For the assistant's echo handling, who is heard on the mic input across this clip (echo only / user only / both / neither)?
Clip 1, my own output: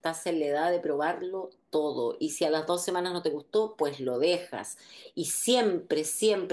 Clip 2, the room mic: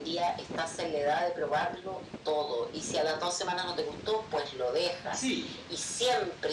both